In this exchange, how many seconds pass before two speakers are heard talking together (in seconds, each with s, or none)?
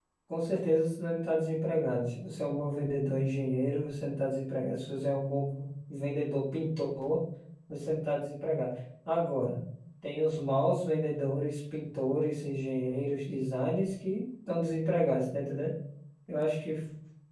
none